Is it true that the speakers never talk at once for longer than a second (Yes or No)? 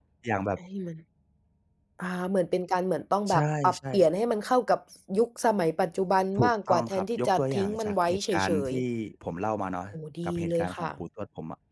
No